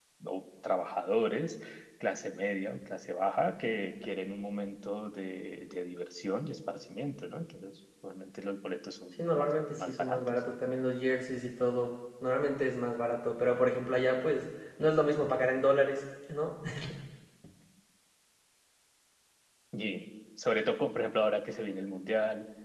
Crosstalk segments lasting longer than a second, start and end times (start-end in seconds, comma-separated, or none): 9.1-10.4